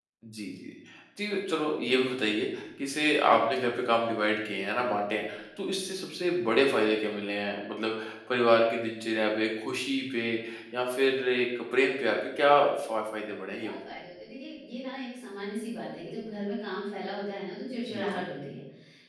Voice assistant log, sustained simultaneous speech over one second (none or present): none